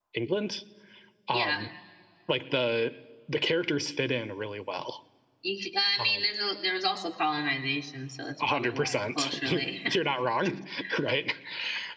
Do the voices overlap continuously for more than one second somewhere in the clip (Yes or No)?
Yes